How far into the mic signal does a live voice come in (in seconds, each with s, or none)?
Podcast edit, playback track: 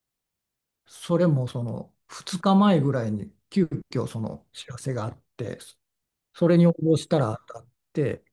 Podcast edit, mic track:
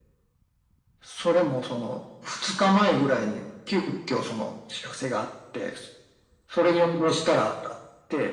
none